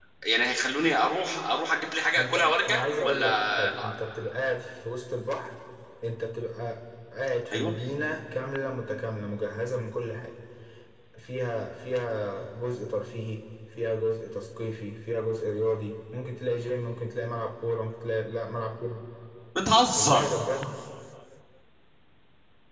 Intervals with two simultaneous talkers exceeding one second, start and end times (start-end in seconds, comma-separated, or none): 2.2-3.9